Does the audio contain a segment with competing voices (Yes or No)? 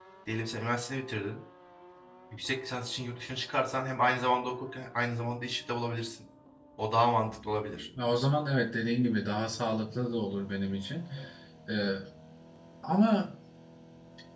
No